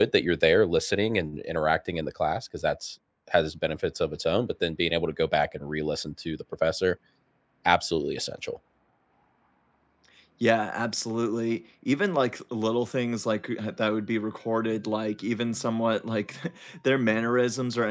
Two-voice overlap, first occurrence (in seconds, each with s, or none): none